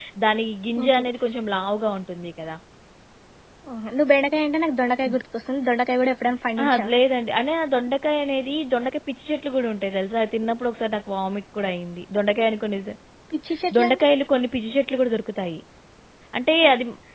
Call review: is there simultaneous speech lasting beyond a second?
No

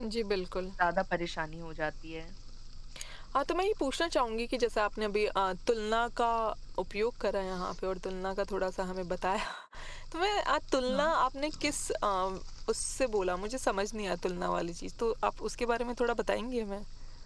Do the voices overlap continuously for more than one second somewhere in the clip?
No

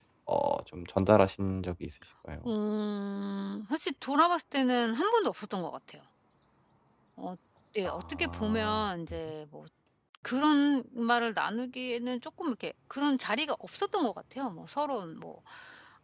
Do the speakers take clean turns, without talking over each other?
No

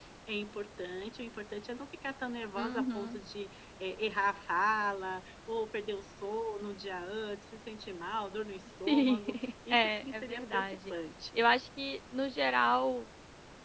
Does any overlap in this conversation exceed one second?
Yes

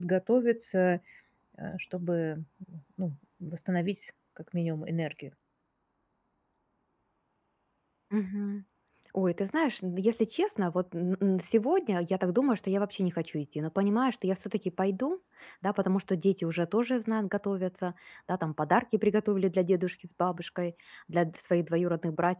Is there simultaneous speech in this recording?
No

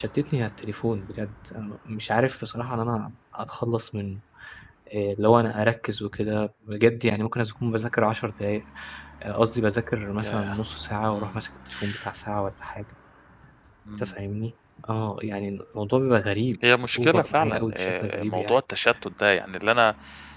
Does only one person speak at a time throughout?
No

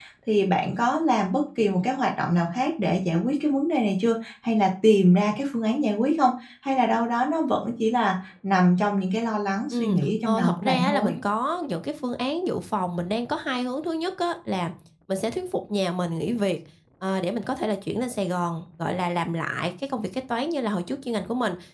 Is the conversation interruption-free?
No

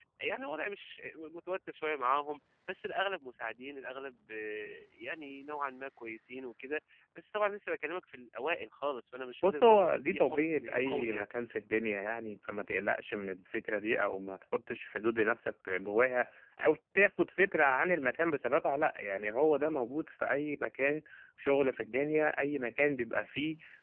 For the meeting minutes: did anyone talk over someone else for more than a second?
Yes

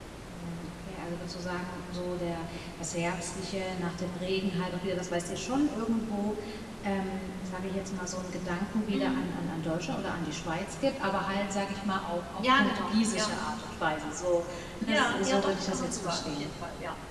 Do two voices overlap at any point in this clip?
Yes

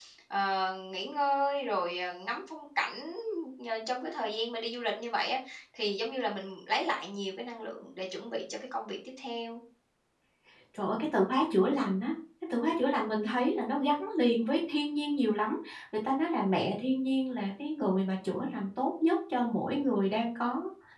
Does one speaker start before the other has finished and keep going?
No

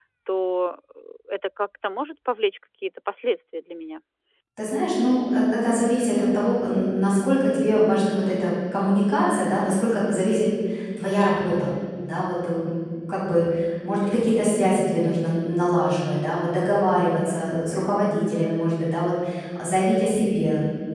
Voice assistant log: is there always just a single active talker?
Yes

